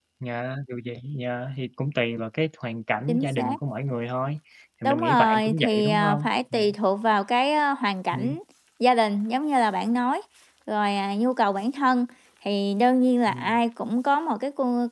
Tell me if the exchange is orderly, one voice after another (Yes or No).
No